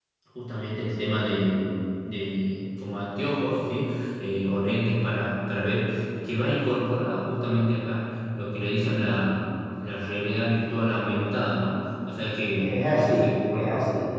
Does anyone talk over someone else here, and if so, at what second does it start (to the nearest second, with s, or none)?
13 s